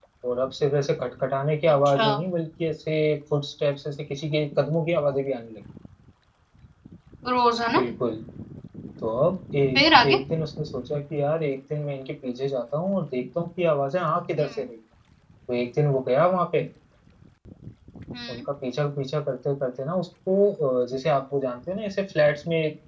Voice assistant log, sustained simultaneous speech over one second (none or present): none